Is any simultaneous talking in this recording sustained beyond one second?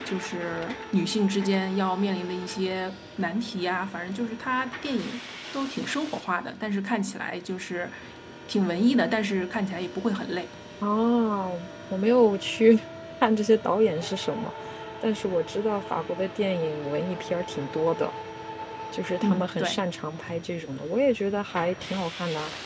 No

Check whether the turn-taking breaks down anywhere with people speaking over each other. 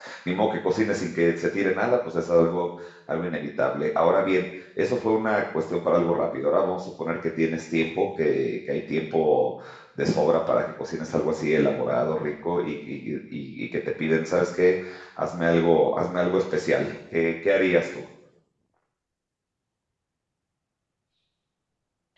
No

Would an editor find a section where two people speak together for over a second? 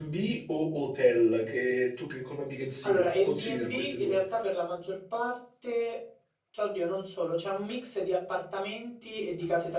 Yes, from 2.8 s

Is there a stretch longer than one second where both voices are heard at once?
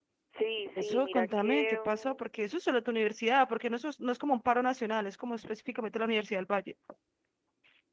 Yes, from 0.8 s

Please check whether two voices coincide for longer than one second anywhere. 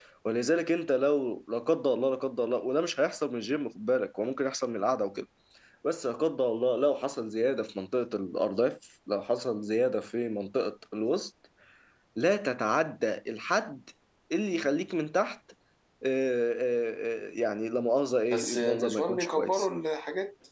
Yes, from 18.3 s

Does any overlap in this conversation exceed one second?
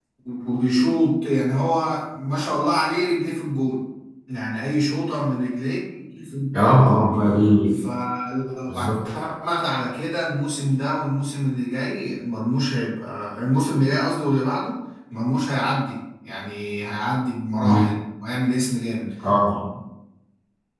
No

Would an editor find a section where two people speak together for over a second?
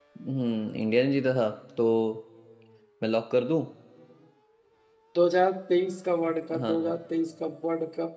No

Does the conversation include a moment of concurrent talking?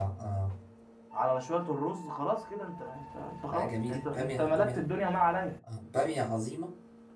Yes, from 3.5 s

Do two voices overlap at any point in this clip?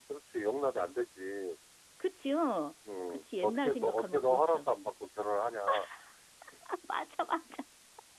Yes, from 2.9 s

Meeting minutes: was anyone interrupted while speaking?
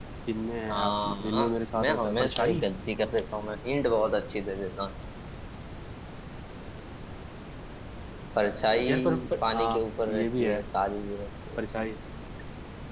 Yes, from 0.7 s

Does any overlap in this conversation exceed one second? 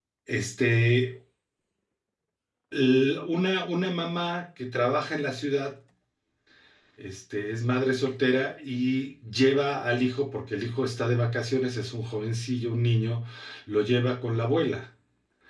No

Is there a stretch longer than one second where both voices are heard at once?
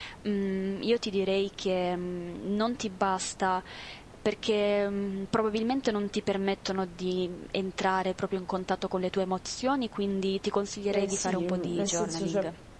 Yes, from 10.9 s

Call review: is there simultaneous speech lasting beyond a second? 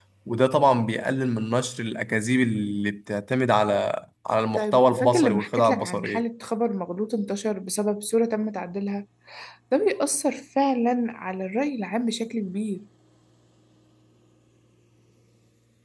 Yes, from 4.5 s

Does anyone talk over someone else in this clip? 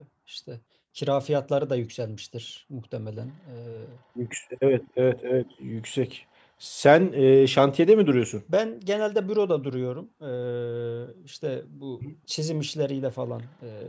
No

